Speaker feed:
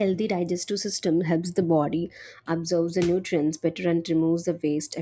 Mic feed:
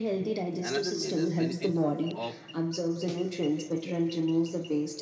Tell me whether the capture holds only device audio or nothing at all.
No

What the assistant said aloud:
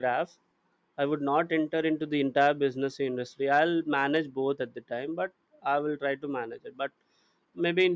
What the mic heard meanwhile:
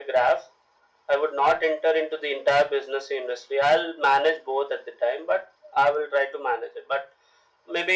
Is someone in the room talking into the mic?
No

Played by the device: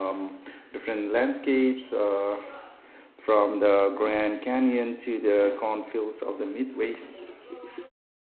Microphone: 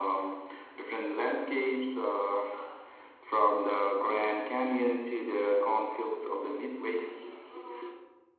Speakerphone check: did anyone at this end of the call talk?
No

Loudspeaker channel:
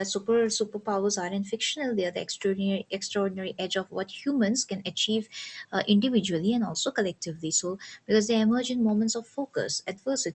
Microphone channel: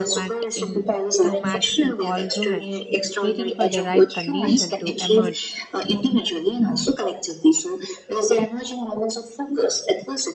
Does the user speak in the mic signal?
Yes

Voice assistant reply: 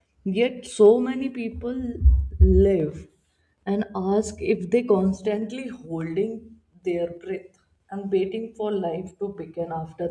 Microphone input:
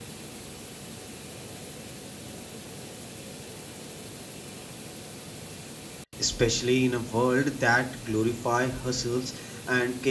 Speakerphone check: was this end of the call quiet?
No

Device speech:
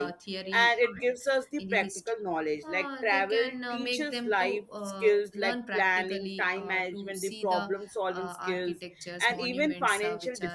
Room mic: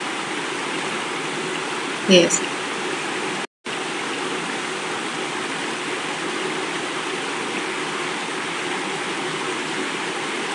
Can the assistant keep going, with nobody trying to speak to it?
No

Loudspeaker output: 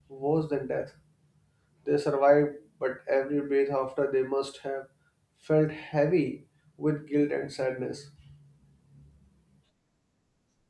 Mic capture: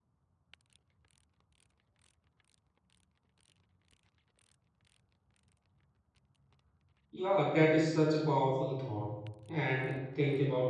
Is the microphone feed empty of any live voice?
No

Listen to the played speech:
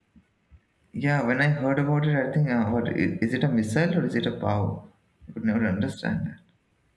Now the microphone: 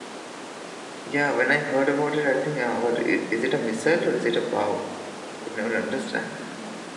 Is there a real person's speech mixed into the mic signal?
No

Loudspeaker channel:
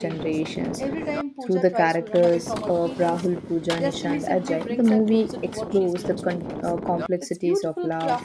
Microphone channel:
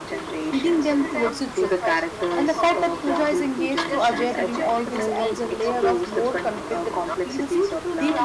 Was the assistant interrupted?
Yes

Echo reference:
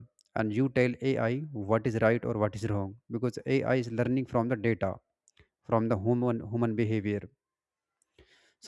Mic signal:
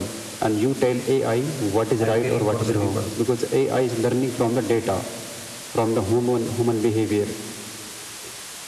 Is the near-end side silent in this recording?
No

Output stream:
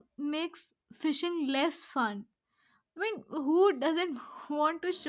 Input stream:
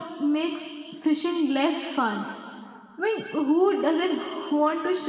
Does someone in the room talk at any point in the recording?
No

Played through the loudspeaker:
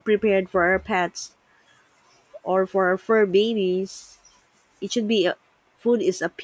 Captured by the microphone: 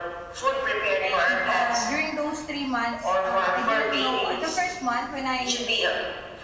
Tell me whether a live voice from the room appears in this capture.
Yes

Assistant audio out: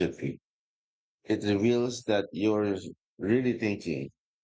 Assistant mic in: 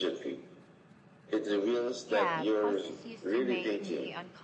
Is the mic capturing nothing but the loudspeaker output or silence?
No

